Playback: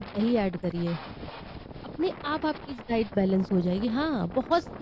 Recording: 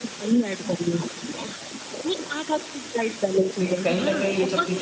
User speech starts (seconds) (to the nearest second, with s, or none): 4 s